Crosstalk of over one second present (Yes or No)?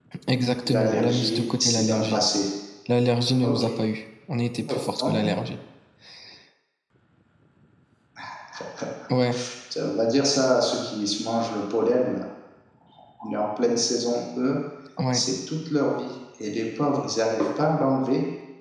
Yes